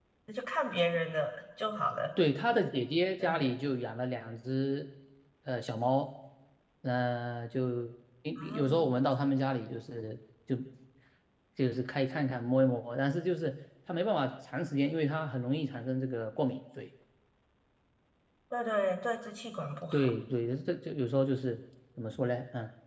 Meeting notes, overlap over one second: none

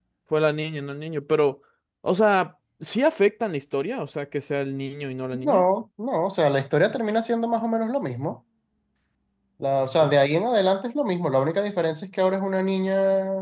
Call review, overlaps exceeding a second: none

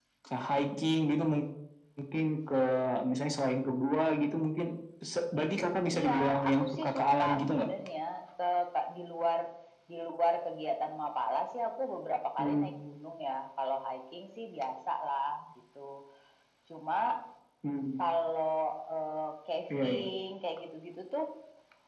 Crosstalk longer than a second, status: present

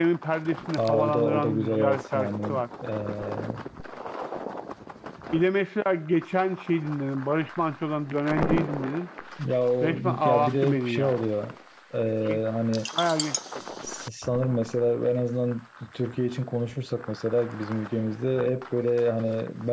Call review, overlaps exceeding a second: present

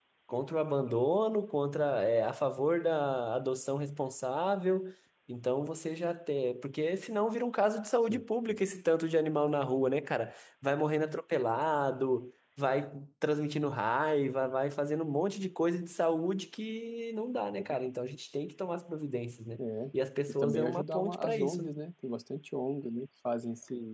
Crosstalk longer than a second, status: present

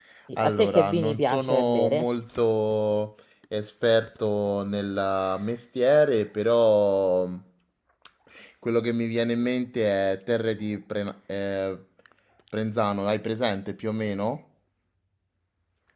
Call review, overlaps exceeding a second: present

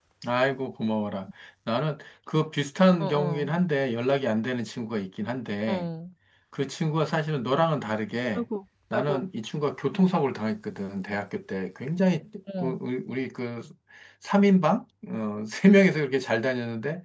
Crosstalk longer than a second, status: none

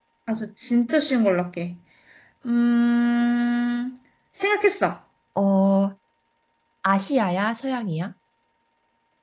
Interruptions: none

